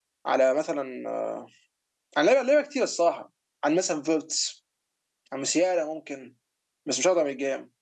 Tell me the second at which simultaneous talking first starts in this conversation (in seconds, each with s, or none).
none